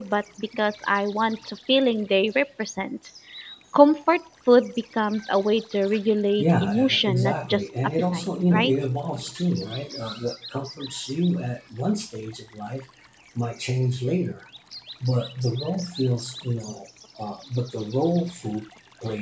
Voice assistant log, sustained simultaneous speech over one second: present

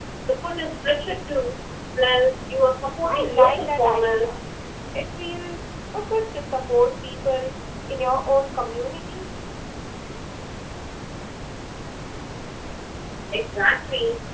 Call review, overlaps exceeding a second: present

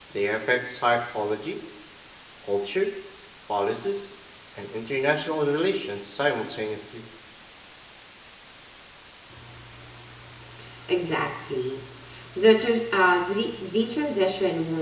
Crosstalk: none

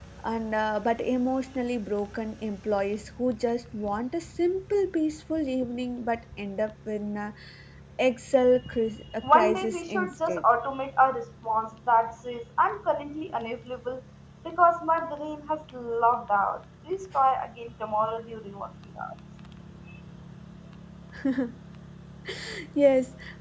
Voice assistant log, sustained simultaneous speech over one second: present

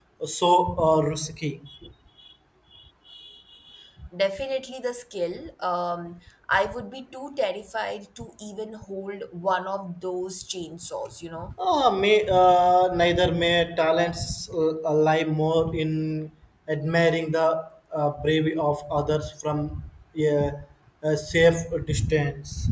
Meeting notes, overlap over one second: none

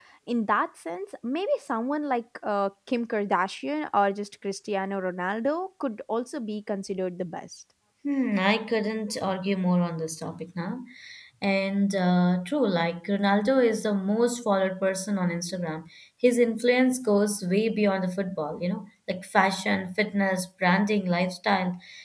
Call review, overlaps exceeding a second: none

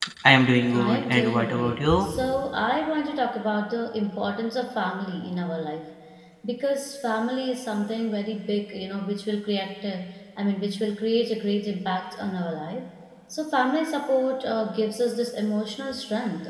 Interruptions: present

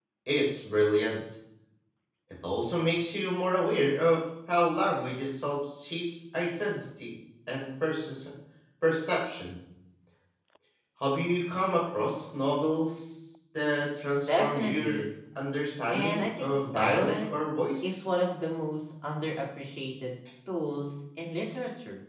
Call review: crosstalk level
present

